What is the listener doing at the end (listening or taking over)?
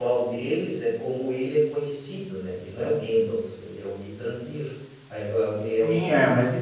taking over